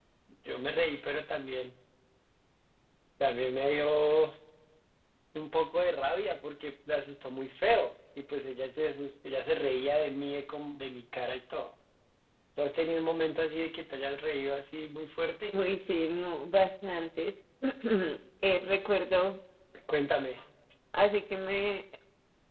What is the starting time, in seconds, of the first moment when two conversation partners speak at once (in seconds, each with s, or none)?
none